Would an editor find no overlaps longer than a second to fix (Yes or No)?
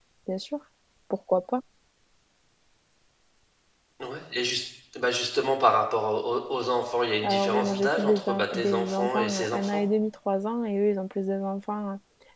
No